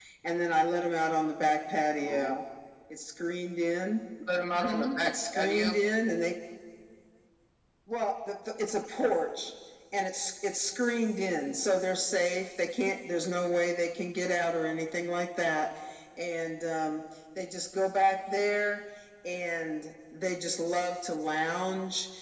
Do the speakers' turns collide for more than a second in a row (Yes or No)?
Yes